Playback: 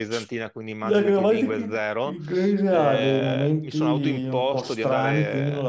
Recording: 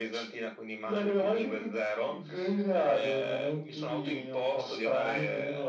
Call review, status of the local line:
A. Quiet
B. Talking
A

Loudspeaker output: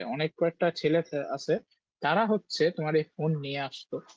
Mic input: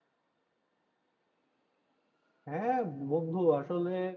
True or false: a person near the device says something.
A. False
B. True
B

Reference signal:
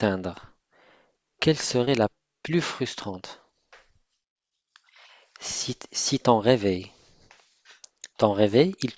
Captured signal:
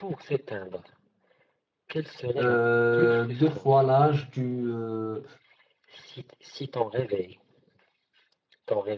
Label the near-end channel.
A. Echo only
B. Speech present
B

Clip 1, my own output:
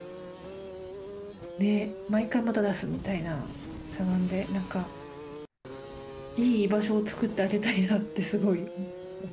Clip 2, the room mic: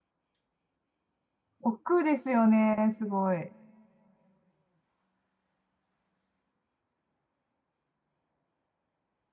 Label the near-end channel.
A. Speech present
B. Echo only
A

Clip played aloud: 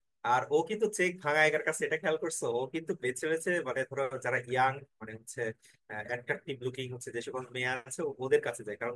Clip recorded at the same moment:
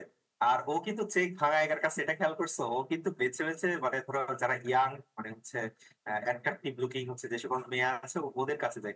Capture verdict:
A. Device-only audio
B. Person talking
A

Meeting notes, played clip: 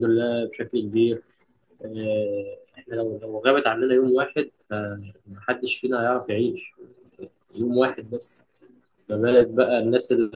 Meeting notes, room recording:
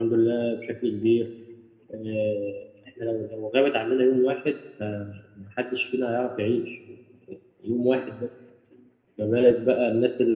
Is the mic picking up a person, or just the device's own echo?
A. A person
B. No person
B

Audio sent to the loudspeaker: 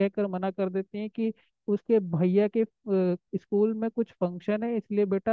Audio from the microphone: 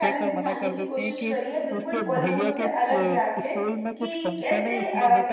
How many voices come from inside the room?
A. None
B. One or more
B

